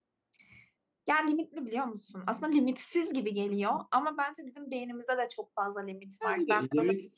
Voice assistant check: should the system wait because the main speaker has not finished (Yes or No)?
No